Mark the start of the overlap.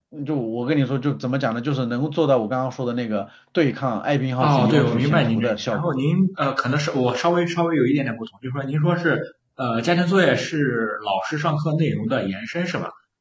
4 s

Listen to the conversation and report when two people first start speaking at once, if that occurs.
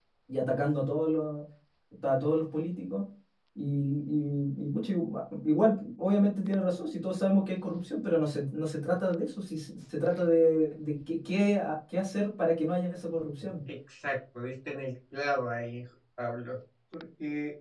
none

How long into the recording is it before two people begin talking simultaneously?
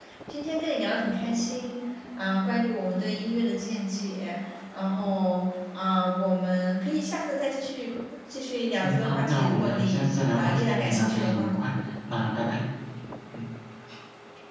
9 s

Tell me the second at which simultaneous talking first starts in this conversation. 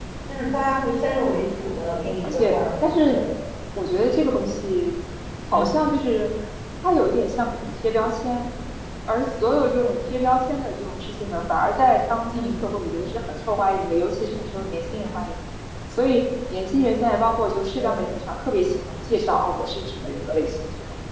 2 s

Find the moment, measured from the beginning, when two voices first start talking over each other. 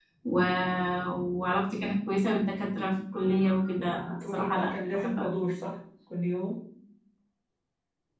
4 s

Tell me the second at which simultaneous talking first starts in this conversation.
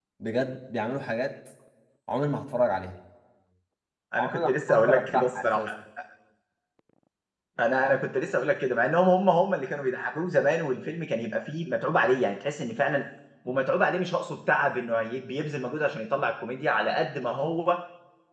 4 s

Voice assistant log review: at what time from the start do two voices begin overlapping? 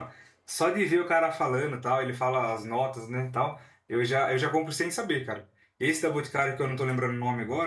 none

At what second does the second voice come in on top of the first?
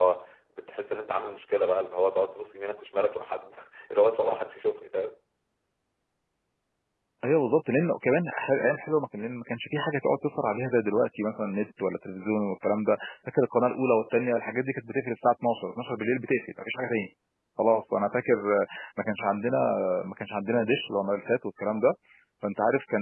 none

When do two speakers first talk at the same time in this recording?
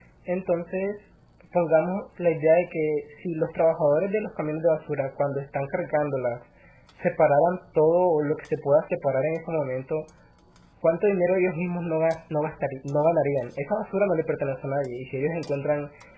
none

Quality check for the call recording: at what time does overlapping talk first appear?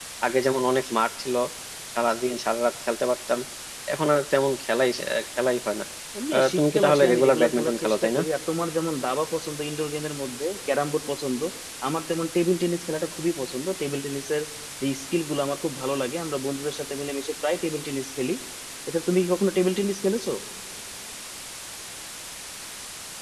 6 s

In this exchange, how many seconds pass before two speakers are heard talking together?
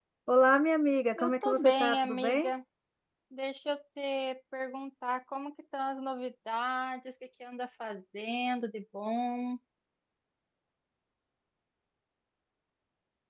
1 s

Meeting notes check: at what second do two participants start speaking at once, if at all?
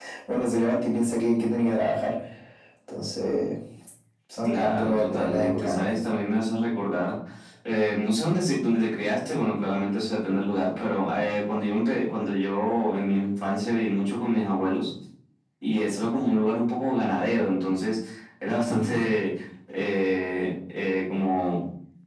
4 s

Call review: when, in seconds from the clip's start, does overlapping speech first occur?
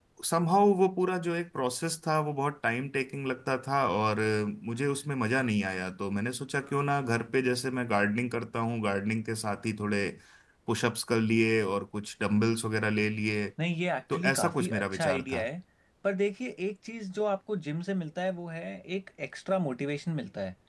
14 s

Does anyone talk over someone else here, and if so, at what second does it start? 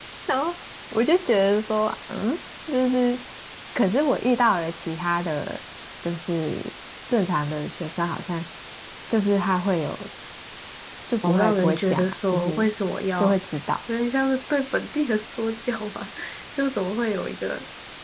11 s

